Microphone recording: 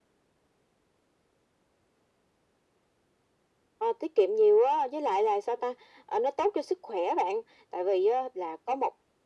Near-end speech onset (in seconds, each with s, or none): none